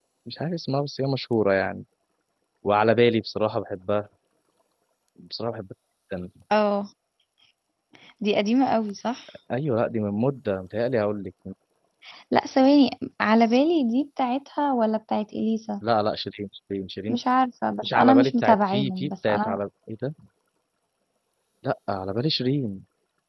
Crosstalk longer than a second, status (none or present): present